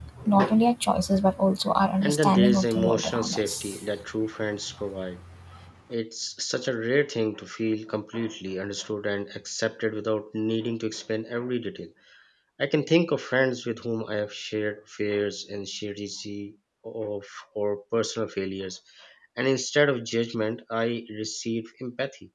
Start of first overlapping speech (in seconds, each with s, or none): 2.0 s